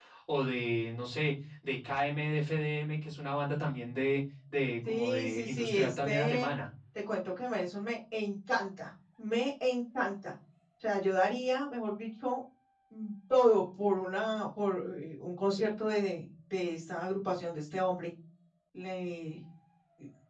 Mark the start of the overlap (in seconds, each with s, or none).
4.9 s